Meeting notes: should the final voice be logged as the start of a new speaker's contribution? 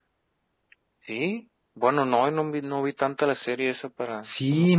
Yes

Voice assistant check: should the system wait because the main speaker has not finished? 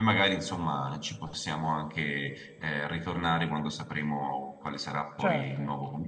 No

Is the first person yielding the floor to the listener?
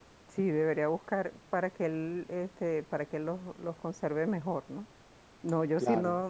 No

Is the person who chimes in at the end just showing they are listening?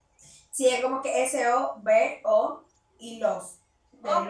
No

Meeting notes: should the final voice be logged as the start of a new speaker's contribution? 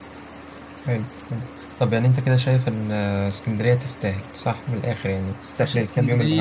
Yes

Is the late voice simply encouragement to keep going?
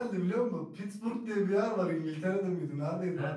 Yes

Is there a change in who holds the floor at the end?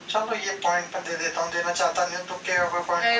Yes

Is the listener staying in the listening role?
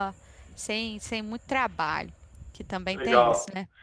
No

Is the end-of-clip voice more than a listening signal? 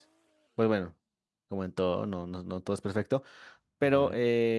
No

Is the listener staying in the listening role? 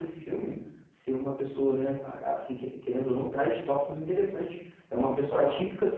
Yes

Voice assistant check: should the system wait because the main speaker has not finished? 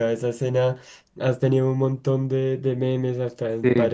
Yes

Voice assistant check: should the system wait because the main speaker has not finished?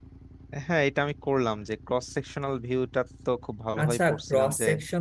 No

